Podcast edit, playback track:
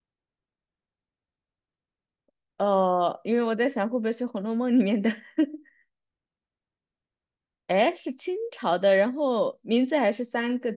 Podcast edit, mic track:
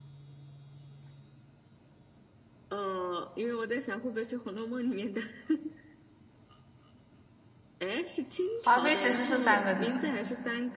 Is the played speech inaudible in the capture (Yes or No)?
No